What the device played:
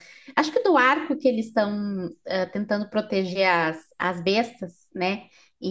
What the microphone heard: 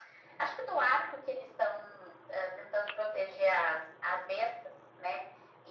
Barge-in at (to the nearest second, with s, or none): none